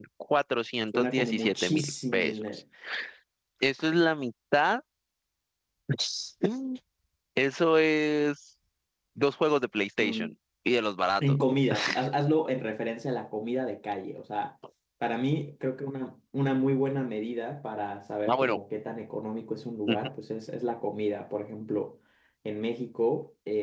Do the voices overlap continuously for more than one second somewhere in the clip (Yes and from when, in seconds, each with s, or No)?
Yes, from 0.9 s